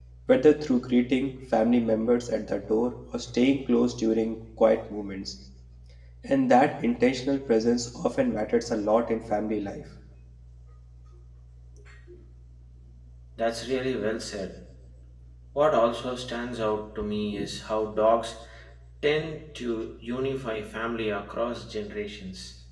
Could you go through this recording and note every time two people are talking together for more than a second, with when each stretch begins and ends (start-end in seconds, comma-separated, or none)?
none